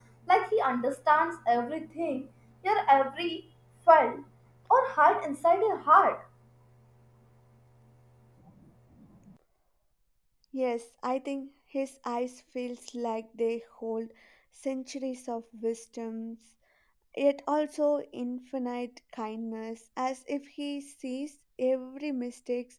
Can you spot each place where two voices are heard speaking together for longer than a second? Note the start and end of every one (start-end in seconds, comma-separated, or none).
none